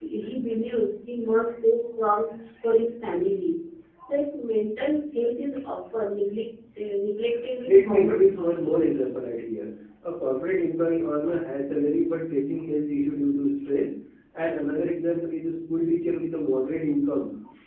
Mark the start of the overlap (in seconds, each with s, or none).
7.6 s